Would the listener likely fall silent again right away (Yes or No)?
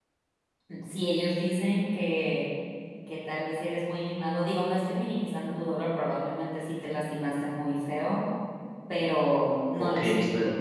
No